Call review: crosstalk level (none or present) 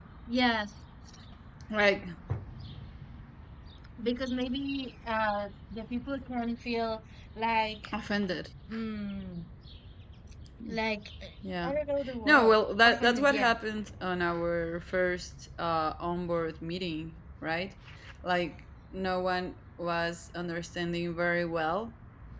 present